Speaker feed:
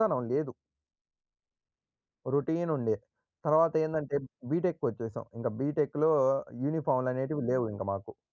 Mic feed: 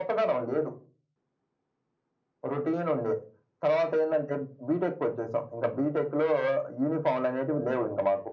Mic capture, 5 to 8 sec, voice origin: echo only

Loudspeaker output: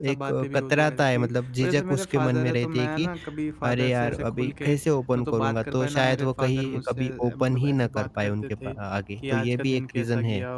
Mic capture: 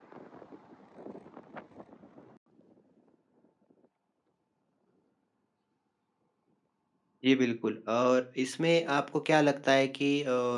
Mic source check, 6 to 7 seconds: neither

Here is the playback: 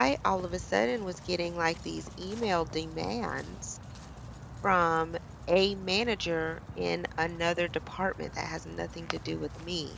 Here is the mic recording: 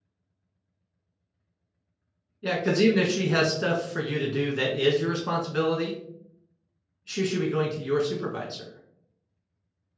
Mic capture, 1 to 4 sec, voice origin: user only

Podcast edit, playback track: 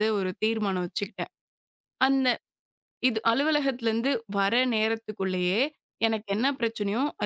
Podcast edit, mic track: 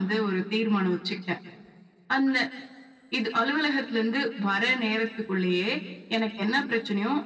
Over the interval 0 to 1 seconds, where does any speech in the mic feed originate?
echo only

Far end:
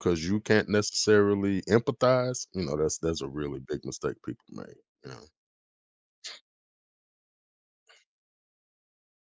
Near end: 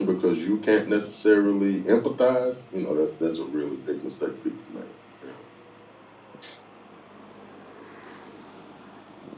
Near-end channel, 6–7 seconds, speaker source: neither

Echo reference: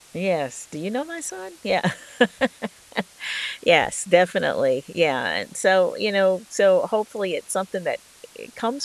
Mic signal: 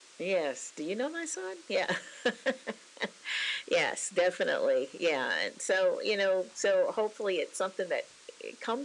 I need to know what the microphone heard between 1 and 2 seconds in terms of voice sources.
echo only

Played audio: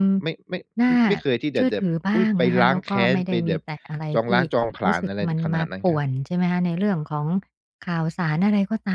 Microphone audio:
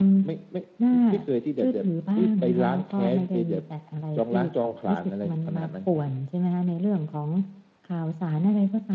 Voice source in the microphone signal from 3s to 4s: echo only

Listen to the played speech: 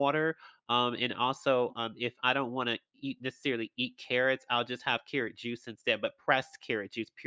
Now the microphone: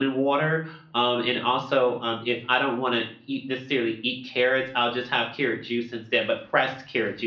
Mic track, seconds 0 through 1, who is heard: echo only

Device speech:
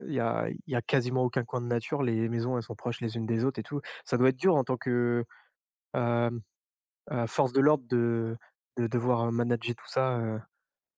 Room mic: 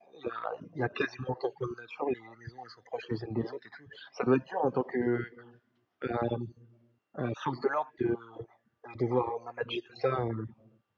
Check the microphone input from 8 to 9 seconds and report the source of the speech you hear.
echo only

